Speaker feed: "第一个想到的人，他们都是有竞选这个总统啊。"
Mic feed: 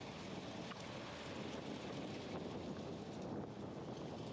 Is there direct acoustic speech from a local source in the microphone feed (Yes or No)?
No